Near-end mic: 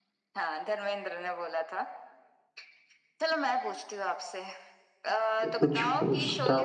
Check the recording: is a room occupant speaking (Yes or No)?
Yes